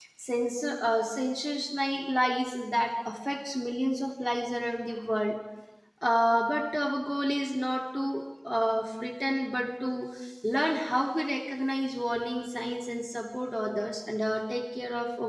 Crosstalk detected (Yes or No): No